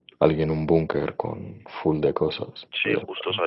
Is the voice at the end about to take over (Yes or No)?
Yes